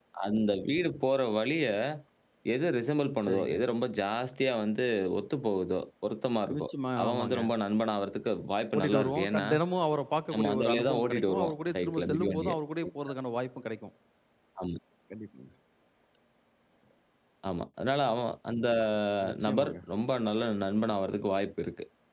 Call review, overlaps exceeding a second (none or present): present